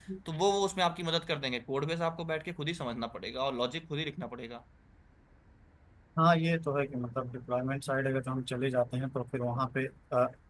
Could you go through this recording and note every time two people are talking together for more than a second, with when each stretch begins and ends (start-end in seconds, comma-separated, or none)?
none